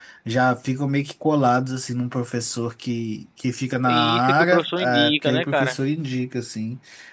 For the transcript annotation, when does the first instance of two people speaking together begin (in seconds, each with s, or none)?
3.9 s